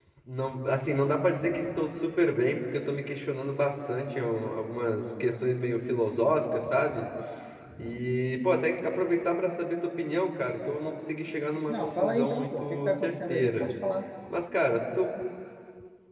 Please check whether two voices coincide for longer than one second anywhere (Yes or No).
Yes